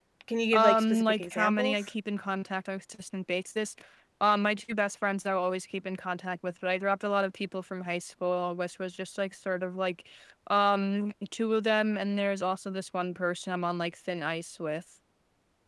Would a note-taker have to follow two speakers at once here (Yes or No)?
Yes